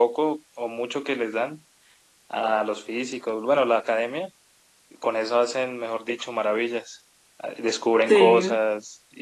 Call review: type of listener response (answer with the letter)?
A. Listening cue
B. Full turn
A